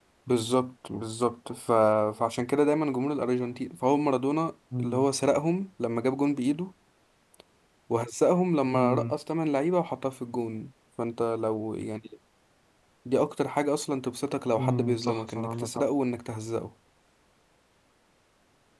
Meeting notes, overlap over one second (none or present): present